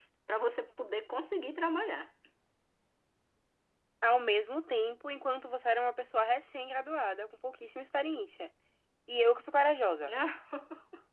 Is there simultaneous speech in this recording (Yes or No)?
No